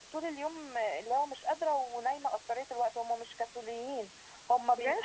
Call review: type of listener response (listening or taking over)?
listening